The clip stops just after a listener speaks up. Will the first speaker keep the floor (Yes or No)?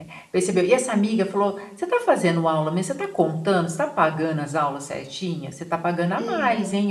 Yes